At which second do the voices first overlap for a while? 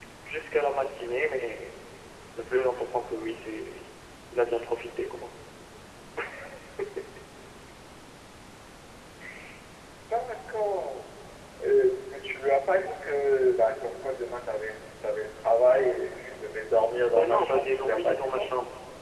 17.1 s

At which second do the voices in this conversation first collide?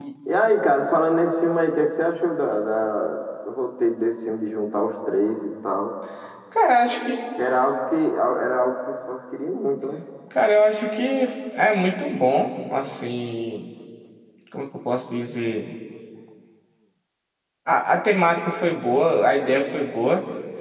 none

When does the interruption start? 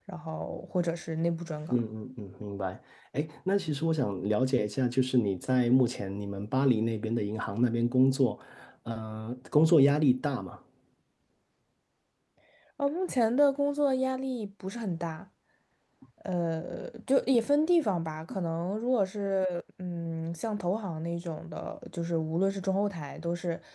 none

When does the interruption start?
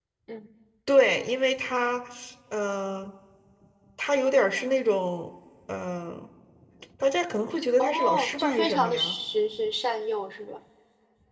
7.8 s

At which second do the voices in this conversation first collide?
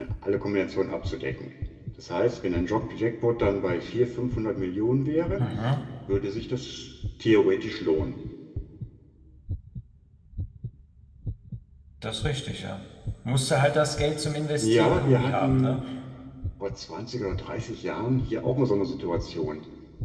14.6 s

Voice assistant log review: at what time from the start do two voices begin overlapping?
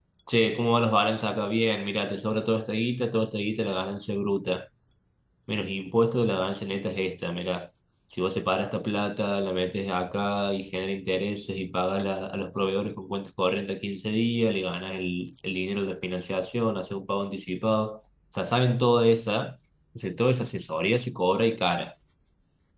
none

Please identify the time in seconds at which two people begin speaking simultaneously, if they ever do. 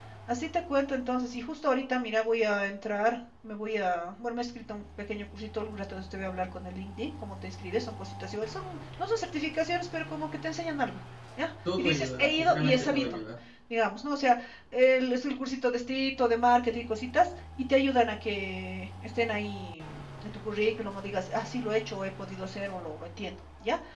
11.6 s

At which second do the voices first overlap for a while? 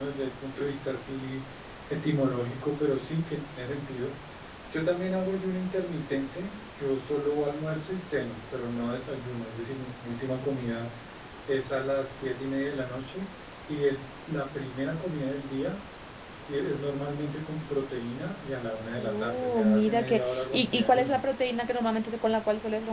19.0 s

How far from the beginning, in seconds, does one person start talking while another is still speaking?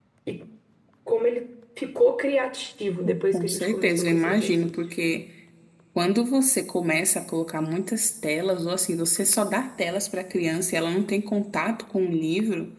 3.3 s

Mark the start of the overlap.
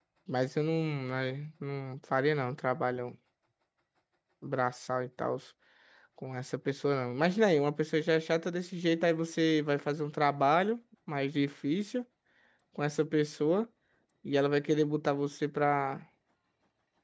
none

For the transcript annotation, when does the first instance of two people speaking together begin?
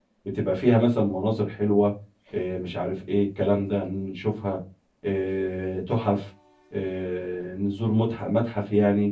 none

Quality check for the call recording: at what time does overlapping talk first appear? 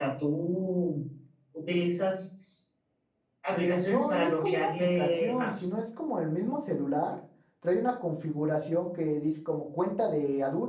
3.5 s

